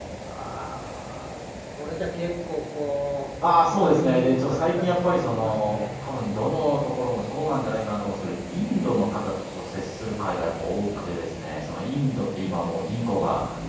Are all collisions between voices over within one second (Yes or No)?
No